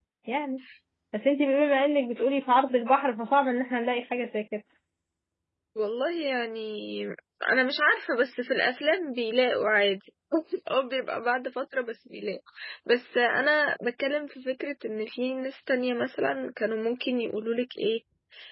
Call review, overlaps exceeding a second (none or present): none